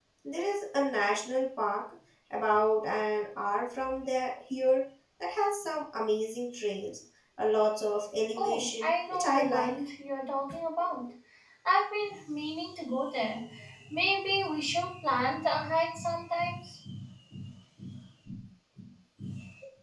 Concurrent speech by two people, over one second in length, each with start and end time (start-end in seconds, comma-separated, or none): 8.4-9.7